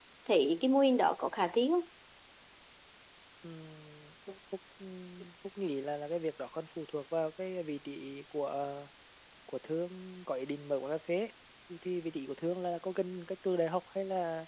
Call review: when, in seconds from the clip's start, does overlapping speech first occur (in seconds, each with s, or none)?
none